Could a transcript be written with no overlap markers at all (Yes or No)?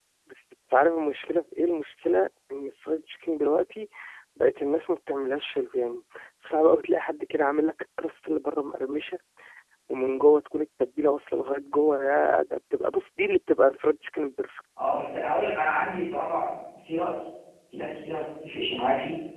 Yes